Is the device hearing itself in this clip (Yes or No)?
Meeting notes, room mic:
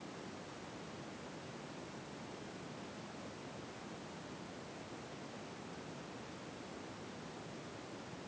No